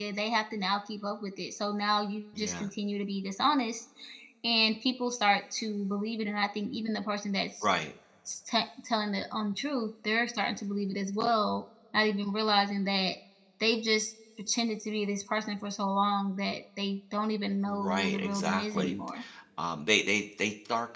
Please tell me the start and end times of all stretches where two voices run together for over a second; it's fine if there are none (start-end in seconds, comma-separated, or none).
17.7-18.9